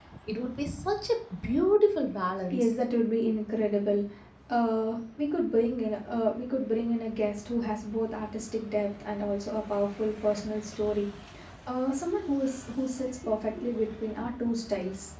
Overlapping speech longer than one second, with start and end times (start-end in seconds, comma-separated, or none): none